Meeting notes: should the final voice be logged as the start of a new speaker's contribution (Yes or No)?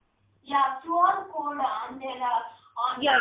Yes